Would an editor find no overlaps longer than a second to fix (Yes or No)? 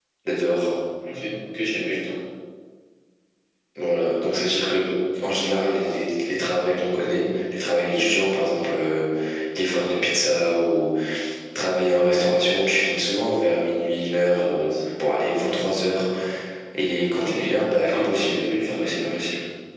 No